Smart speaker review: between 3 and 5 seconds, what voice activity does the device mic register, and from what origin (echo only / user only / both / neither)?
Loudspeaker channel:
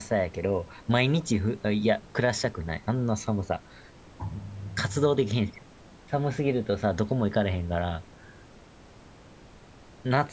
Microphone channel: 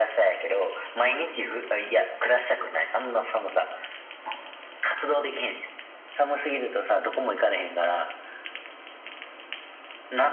echo only